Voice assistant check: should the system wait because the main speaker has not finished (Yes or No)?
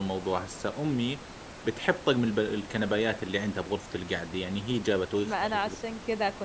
No